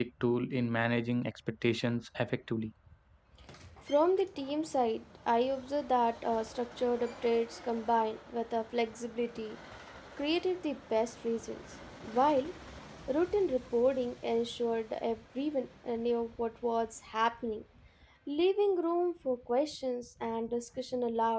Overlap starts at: none

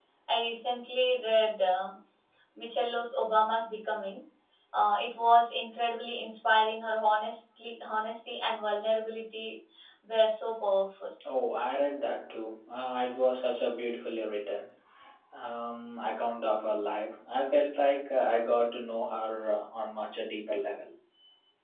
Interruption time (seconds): none

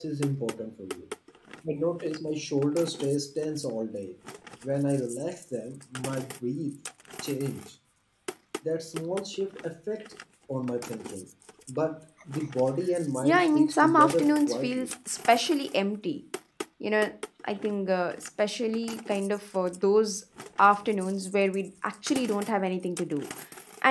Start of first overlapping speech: 13.2 s

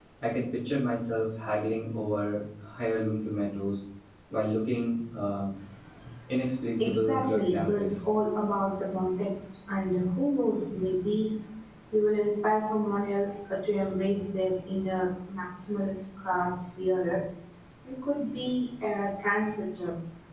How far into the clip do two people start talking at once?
6.8 s

